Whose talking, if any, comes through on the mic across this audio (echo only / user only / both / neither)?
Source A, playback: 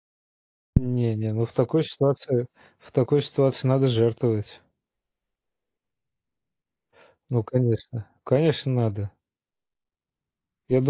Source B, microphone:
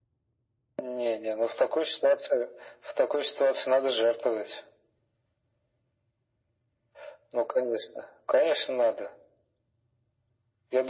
echo only